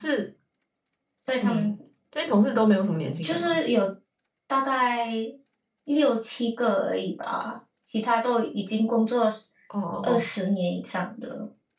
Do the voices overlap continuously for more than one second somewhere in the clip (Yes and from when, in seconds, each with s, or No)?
No